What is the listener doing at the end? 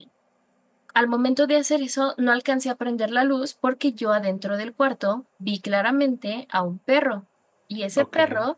listening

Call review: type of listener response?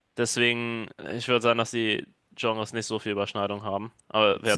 taking over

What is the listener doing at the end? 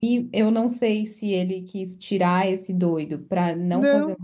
listening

